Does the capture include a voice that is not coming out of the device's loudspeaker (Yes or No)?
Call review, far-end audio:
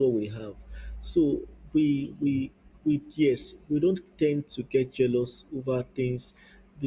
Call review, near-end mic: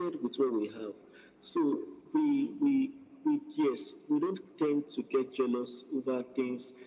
No